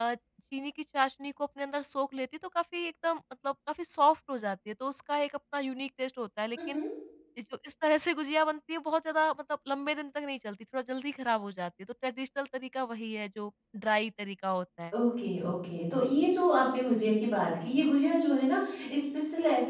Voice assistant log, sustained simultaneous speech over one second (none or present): none